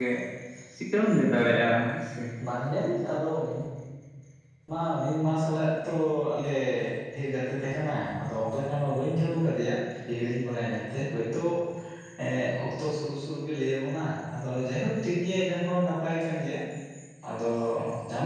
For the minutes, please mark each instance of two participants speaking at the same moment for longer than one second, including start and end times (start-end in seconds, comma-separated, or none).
none